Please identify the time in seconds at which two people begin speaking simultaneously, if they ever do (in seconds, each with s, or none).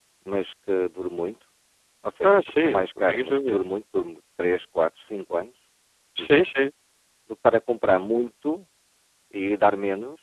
2.2 s